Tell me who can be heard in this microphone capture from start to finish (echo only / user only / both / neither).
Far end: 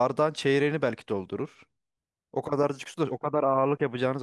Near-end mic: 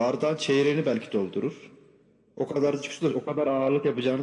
echo only